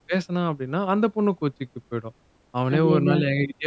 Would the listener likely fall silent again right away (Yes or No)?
Yes